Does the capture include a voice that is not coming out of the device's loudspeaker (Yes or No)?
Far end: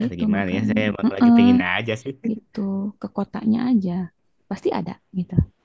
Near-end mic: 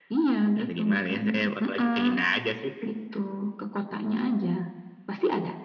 No